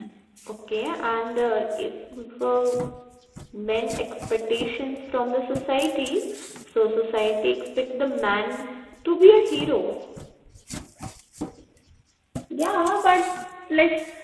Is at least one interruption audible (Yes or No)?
No